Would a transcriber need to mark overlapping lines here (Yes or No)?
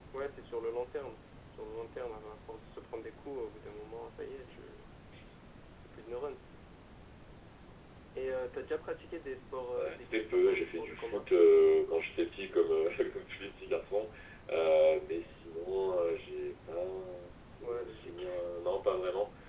Yes